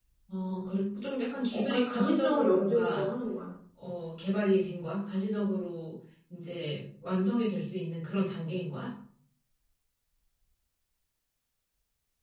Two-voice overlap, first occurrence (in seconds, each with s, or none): 1.5 s